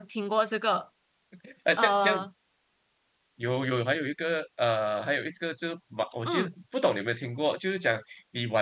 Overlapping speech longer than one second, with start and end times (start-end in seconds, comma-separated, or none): none